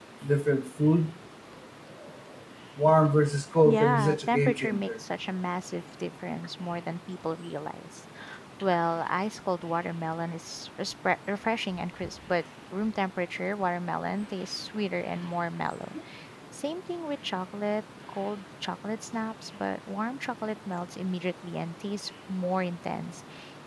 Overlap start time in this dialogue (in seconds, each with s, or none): 3.6 s